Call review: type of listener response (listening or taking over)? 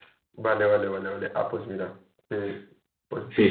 taking over